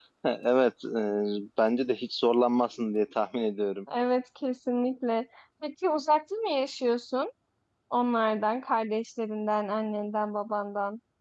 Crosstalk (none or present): none